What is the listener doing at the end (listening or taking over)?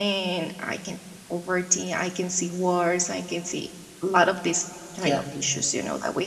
listening